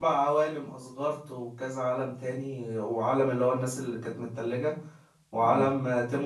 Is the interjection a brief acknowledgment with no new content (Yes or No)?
Yes